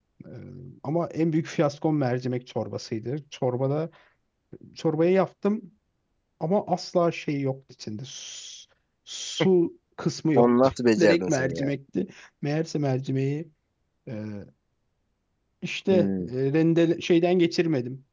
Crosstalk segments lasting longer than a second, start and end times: 10.3-11.7

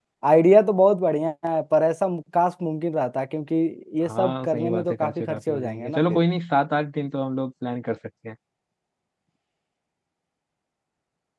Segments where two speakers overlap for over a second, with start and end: 4.0-6.2

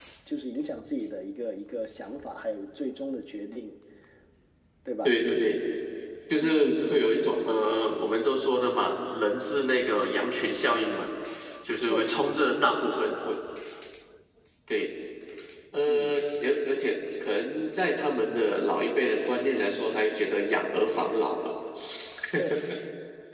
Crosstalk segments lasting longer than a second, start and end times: 11.8-13.2

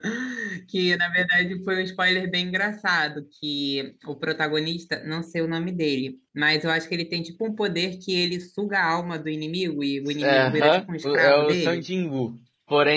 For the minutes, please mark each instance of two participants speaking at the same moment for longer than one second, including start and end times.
10.2-11.8

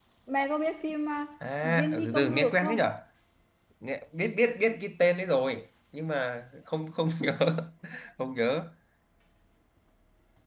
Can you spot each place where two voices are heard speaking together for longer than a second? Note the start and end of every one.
1.6-2.9

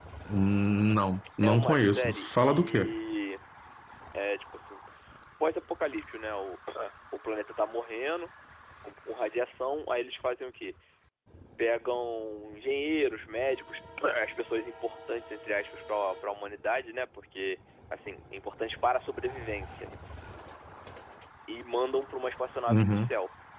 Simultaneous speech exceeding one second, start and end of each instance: 1.4-2.9

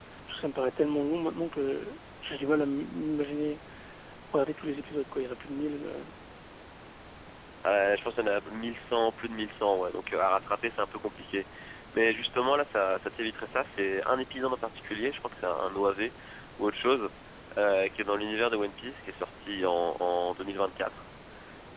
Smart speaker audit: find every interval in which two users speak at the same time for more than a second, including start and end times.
none

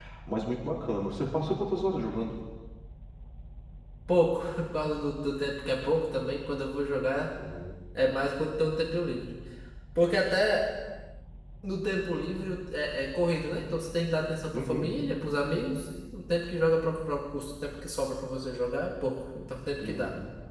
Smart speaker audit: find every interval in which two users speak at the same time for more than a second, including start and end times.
none

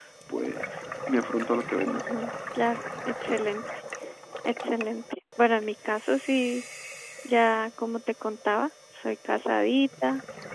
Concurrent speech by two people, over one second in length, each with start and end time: none

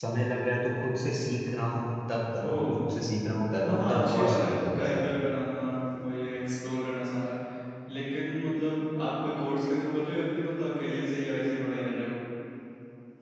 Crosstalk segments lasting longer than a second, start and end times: 3.6-5.1

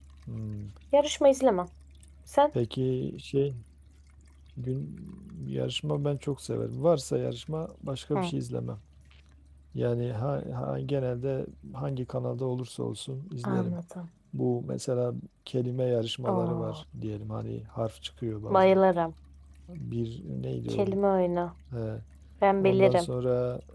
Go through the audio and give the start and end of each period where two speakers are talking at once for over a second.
none

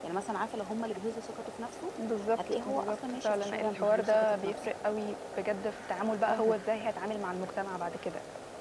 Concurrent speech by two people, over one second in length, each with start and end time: 2.7-4.7

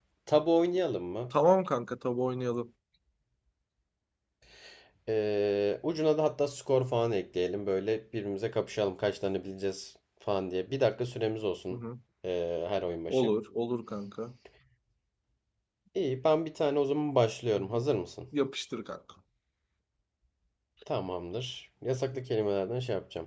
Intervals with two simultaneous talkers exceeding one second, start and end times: none

